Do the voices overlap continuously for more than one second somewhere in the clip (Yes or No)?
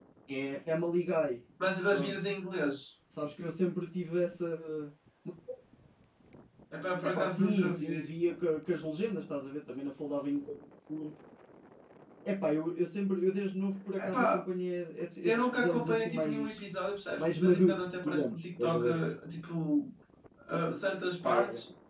Yes